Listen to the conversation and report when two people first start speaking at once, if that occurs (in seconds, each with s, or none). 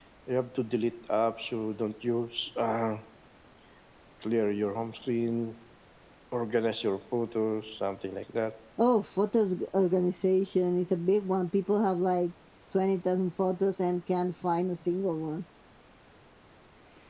none